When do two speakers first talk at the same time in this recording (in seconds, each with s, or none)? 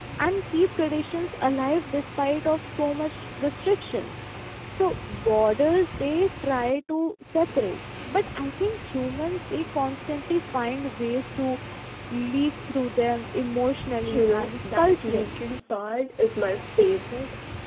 14.0 s